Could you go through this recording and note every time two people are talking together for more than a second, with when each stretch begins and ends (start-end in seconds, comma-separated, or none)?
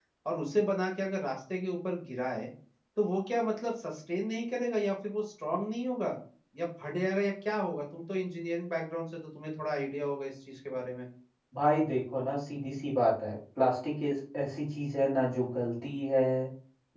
none